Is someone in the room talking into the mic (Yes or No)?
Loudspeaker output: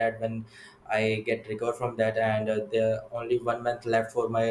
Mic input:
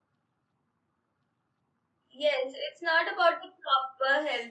Yes